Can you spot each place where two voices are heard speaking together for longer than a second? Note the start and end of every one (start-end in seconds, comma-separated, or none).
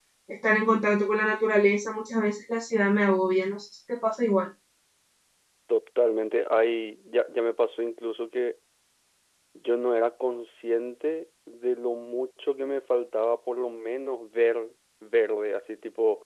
none